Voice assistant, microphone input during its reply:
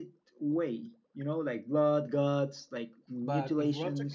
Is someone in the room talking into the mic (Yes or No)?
Yes